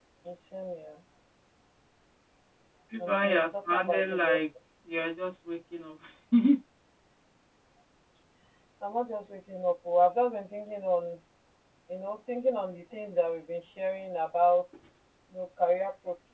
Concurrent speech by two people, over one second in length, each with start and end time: 3.0-4.4

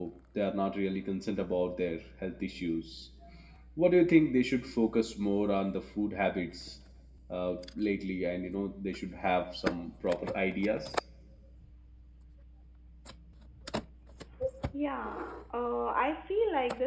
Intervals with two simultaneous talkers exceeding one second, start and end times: none

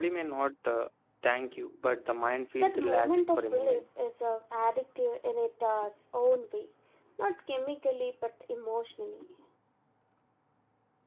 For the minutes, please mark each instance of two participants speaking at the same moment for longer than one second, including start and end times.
2.6-3.8

